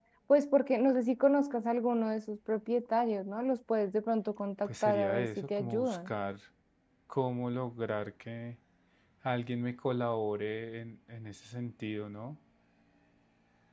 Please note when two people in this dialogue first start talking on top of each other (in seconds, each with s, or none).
4.7 s